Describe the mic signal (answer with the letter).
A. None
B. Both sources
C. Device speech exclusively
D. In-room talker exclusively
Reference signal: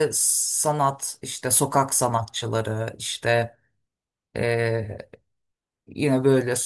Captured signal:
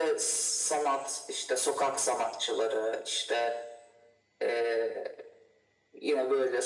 C